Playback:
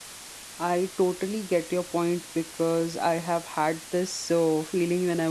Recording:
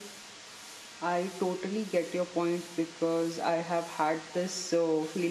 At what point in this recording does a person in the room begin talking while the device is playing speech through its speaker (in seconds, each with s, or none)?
none